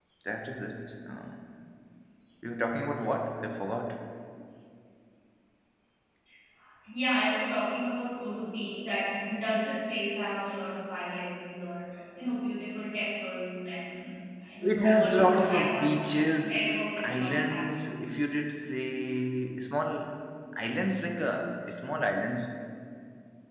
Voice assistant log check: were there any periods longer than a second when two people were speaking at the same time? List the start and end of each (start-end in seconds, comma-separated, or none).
14.6-17.6